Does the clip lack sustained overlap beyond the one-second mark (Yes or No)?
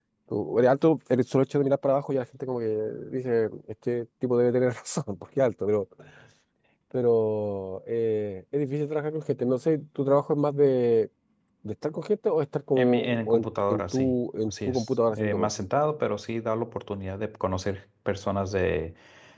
No